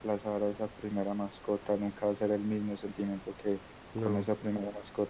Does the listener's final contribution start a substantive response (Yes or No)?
No